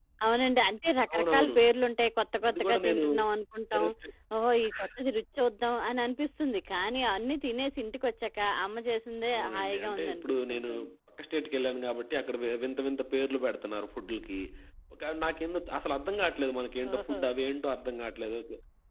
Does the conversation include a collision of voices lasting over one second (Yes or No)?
Yes